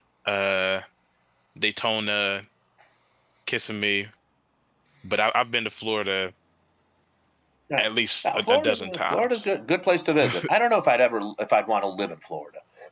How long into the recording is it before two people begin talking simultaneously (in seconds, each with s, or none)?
8.2 s